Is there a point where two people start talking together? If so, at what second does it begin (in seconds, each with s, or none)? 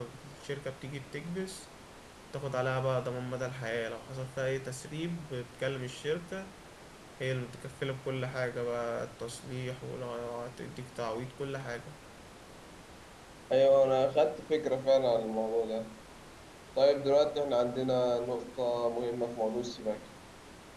none